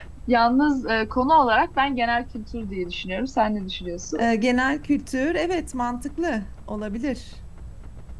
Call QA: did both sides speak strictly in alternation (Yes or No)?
Yes